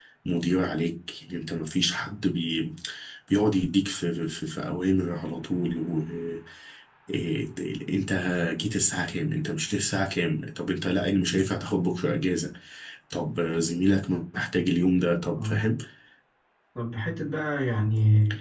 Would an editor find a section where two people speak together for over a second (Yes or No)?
No